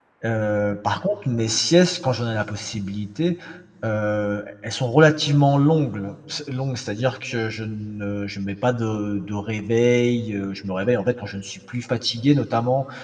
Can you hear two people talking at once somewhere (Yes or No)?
No